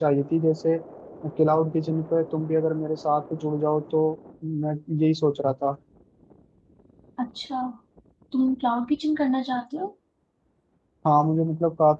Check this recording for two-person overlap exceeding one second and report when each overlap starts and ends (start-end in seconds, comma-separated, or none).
none